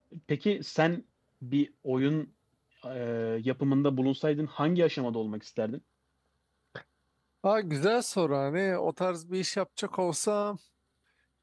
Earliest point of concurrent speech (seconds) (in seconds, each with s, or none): none